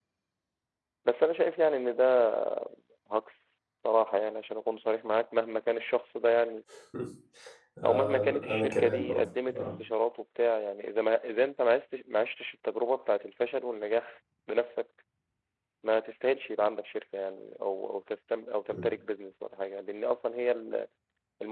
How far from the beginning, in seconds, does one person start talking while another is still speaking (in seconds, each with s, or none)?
7.9 s